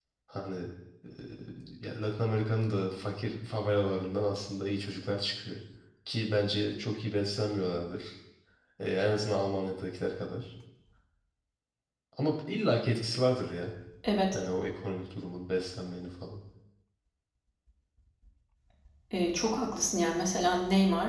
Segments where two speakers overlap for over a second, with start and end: none

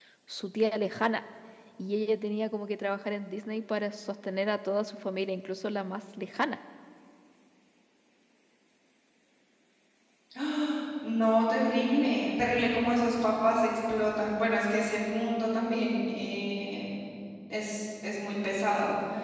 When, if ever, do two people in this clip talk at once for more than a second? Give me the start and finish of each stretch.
none

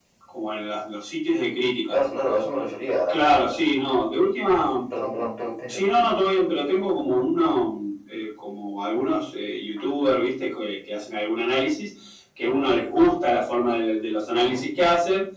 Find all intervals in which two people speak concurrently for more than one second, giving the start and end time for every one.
none

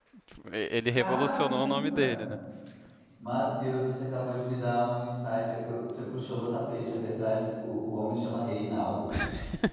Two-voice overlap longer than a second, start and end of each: 0.9-2.3

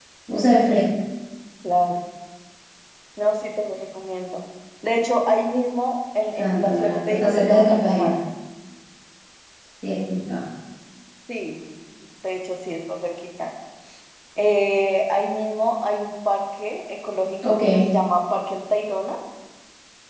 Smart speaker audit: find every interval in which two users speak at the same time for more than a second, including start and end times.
6.4-8.1

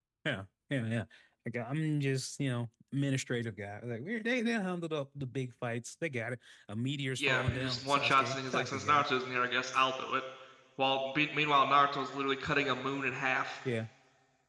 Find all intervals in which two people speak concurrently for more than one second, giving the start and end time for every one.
7.2-9.0

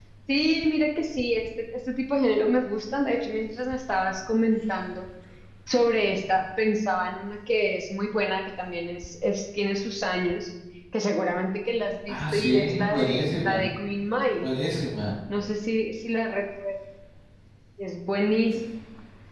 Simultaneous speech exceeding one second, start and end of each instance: 12.1-13.6

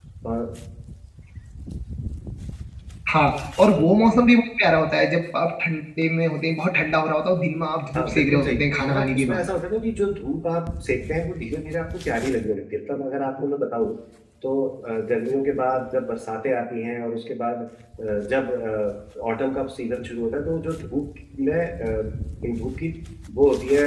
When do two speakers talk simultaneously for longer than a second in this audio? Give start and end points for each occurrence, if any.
8.0-9.4

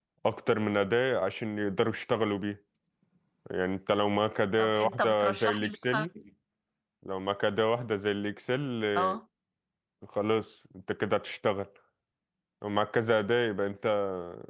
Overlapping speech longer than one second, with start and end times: 4.6-6.1

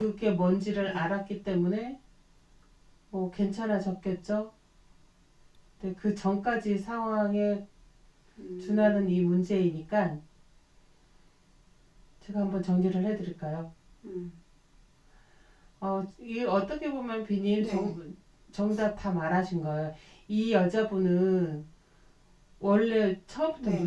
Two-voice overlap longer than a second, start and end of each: none

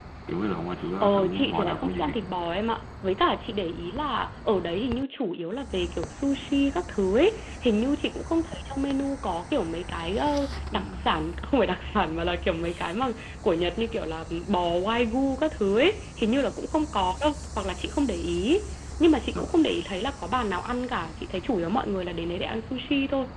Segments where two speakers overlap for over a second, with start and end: 1.0-2.4

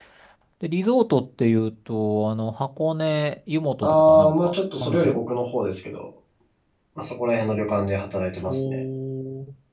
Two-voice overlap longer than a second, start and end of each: 3.8-5.2

